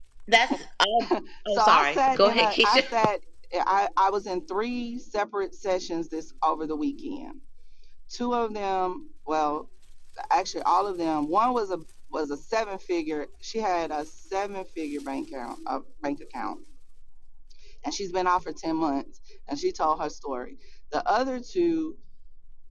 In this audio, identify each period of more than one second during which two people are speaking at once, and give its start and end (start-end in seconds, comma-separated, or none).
1.5-2.8